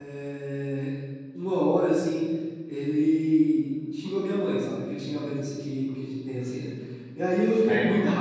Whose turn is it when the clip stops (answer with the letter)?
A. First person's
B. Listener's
B